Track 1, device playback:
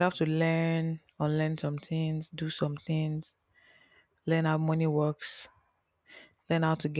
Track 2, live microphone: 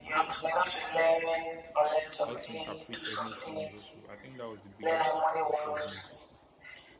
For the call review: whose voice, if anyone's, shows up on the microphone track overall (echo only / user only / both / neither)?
both